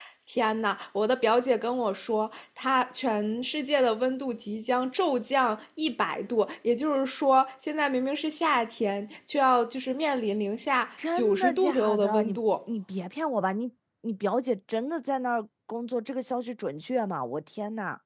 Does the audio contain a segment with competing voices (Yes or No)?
Yes